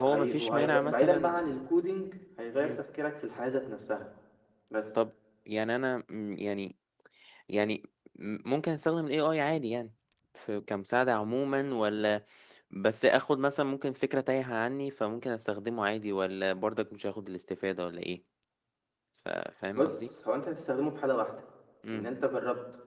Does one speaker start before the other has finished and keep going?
Yes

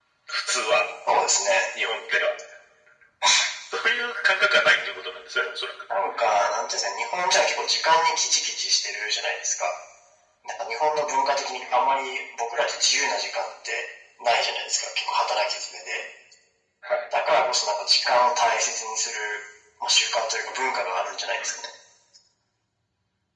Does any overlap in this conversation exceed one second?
No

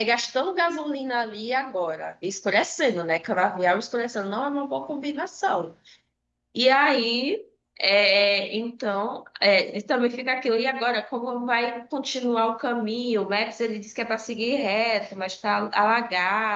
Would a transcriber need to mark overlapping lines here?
No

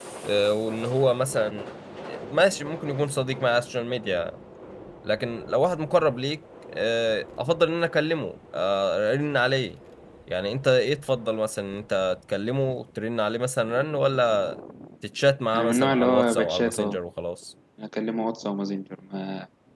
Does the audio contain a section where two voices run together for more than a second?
Yes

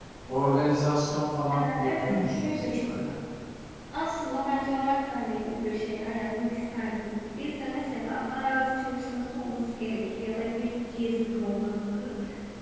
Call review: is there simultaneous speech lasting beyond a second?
Yes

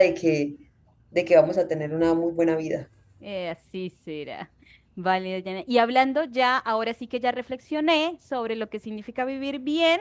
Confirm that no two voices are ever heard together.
Yes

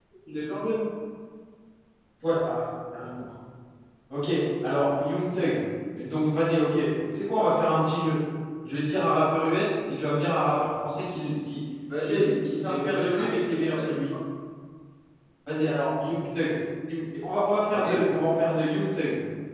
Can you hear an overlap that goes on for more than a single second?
Yes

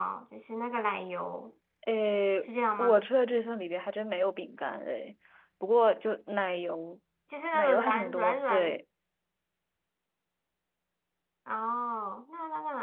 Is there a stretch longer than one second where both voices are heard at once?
Yes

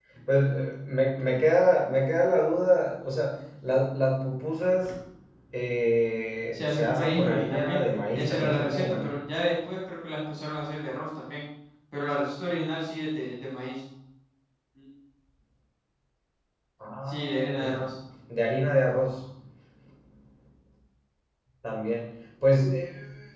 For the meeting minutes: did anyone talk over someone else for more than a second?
Yes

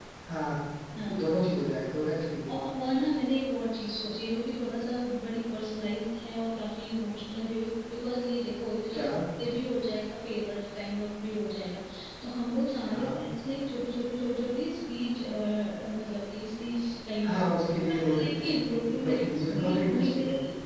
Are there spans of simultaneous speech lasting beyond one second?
Yes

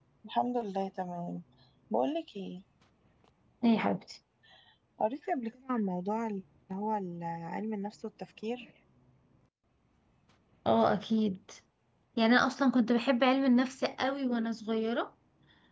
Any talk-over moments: No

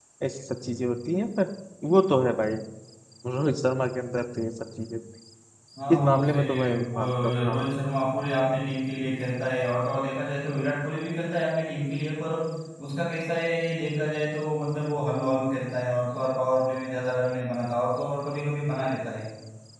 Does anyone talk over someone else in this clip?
Yes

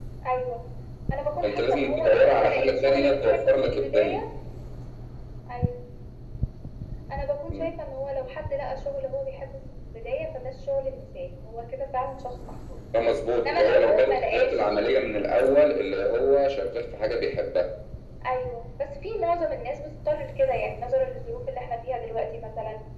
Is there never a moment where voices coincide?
No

